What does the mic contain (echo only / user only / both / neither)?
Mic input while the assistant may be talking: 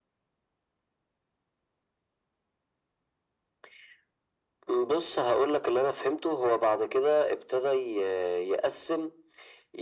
echo only